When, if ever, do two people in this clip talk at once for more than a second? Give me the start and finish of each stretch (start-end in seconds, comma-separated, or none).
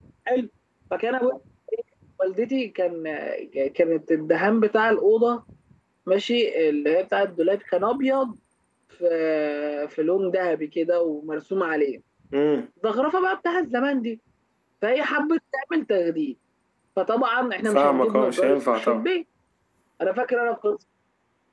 17.7-19.0